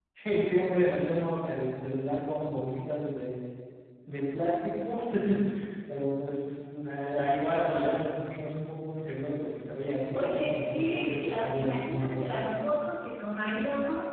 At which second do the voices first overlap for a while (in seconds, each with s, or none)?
10.1 s